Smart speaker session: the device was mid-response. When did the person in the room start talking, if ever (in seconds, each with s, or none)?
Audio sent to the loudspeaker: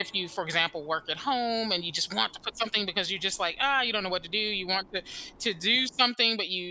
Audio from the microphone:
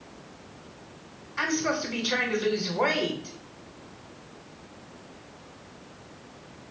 1.4 s